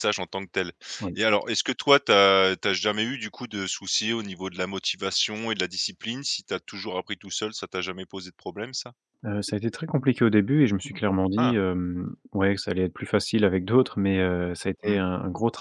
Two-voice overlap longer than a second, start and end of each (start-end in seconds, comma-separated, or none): none